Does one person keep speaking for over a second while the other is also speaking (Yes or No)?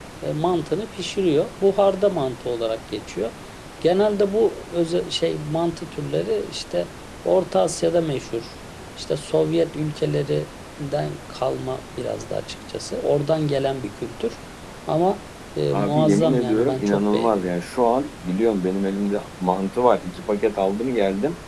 Yes